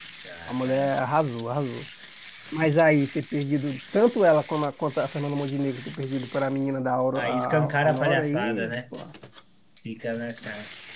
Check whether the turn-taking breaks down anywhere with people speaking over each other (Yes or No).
Yes